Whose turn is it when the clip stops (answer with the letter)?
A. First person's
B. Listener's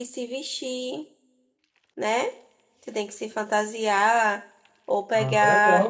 A